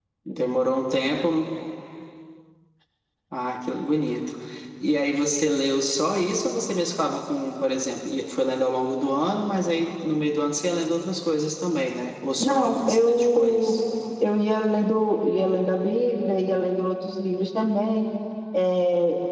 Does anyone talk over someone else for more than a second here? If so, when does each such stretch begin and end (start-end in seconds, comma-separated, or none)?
12.4-13.7